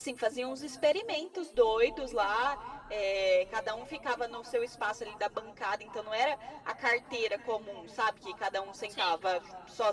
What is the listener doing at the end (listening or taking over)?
listening